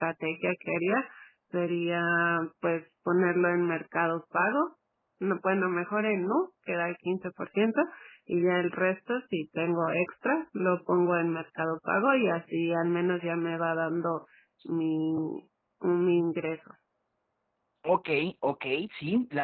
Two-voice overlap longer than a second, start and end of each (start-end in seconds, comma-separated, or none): none